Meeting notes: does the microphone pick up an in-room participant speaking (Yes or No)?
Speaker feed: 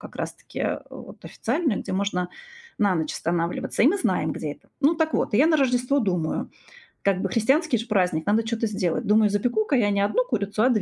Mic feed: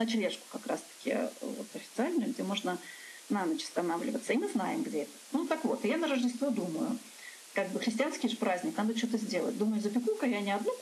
No